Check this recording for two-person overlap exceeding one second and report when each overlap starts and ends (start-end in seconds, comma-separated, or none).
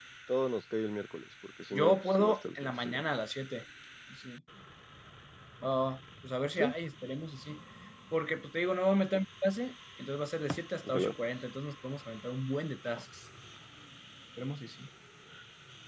1.7-3.0